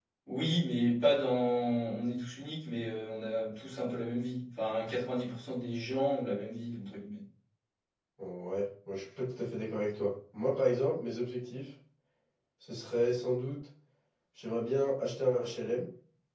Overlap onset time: none

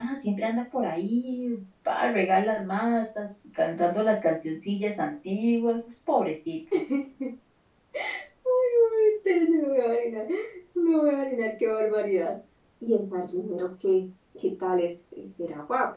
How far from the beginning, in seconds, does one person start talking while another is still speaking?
none

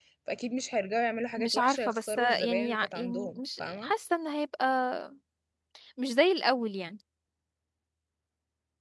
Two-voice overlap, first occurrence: 1.4 s

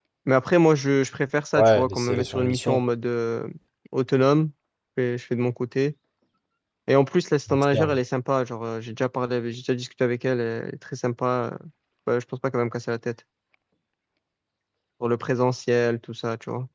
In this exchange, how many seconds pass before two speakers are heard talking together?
1.6 s

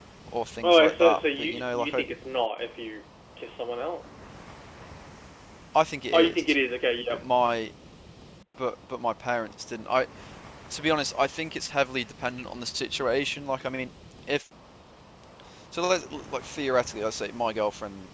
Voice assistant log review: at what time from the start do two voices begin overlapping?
0.6 s

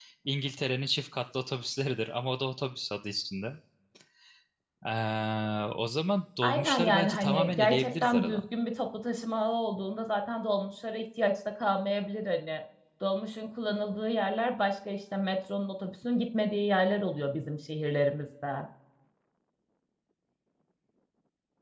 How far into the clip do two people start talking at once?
6.4 s

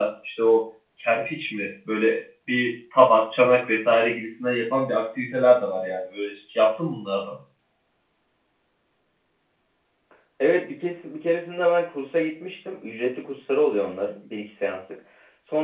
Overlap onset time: none

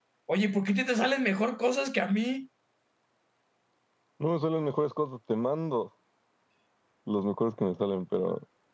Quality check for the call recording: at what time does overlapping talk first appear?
none

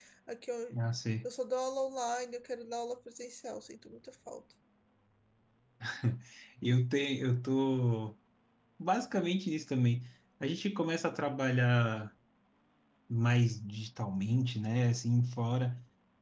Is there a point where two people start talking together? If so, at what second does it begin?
none

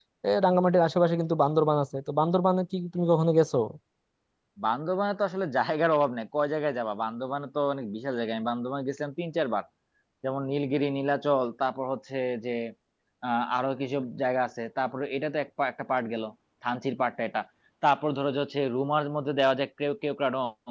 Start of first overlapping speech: none

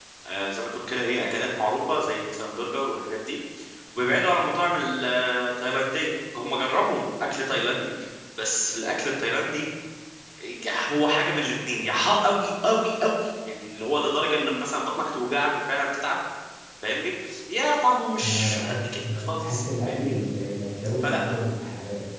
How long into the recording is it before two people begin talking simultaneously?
18.2 s

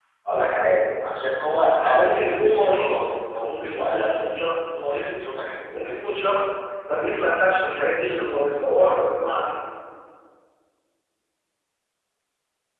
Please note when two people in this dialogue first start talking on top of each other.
1.7 s

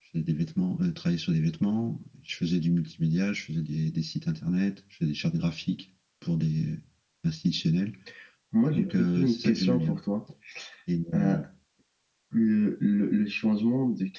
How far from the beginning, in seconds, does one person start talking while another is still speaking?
8.7 s

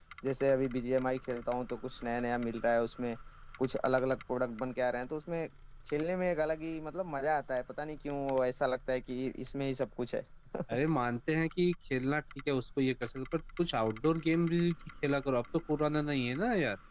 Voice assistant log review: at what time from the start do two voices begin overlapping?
none

